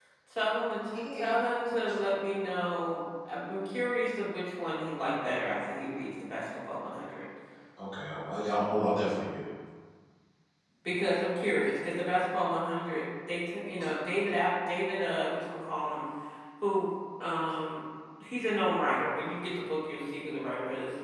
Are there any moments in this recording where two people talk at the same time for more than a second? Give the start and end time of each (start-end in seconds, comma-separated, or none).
none